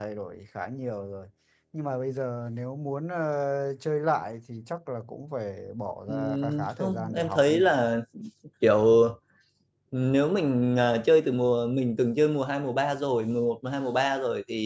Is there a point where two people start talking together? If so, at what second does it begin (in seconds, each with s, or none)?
6.1 s